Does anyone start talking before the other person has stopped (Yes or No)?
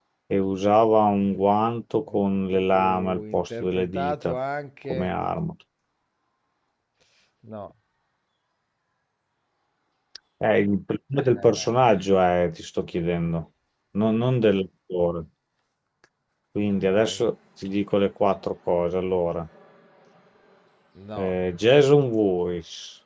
Yes